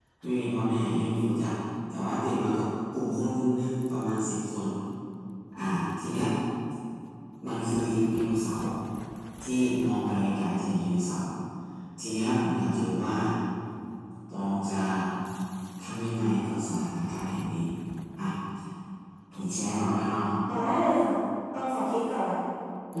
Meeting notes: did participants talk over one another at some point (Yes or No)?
No